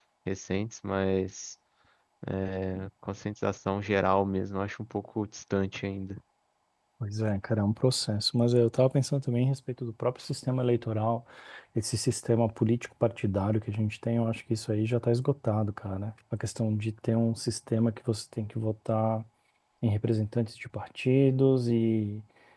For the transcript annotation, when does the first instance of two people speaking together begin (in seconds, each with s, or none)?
none